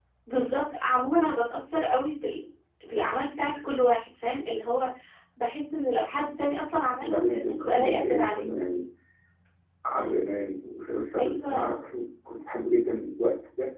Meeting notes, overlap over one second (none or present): present